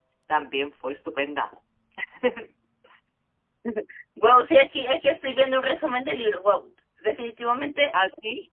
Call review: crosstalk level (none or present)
none